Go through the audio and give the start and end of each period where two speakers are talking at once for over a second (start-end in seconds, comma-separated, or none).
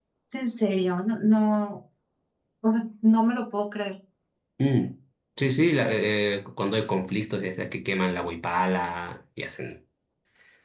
none